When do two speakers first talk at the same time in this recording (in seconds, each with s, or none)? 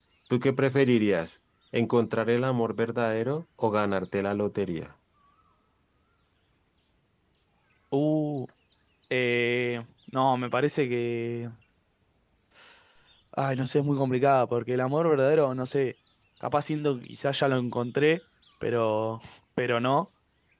none